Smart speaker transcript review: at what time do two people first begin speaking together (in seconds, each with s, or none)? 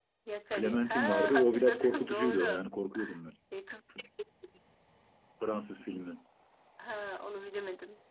0.6 s